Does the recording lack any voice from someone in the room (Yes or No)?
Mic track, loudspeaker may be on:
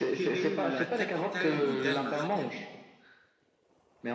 No